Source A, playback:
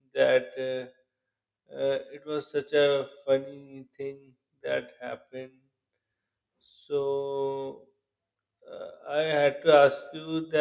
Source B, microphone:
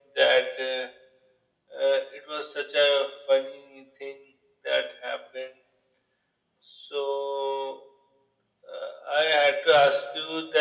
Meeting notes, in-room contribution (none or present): none